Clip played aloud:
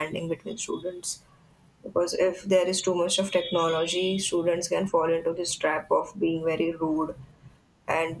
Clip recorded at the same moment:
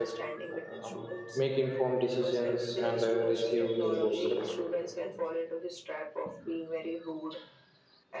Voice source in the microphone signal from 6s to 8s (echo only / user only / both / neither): echo only